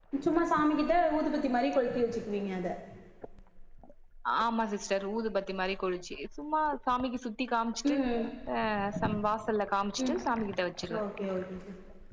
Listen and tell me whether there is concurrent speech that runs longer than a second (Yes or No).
No